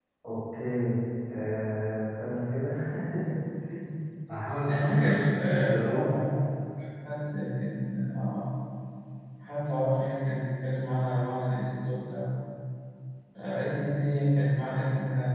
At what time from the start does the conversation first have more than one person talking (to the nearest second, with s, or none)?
5 s